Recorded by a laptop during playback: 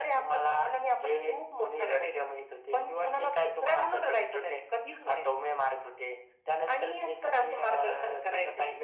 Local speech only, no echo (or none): none